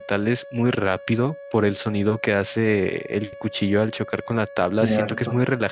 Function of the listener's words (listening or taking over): listening